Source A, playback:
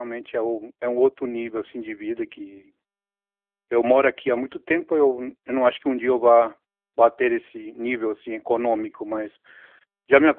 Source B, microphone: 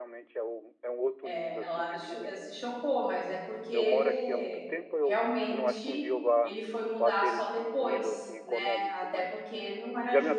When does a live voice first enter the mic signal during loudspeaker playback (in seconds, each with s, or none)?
1.2 s